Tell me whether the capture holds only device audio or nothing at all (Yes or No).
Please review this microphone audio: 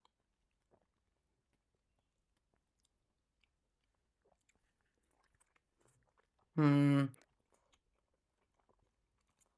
No